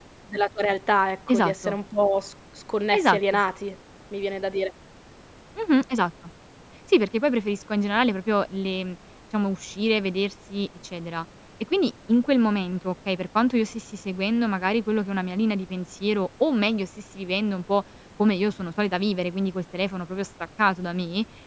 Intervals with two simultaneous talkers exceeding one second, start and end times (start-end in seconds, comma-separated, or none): none